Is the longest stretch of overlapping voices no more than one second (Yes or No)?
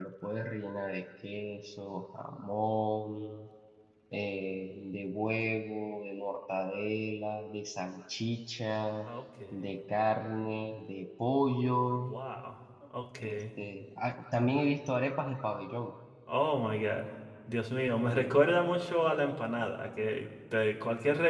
Yes